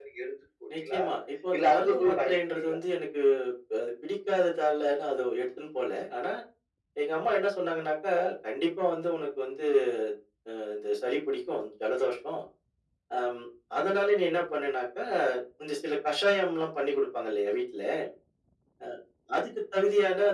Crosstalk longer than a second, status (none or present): present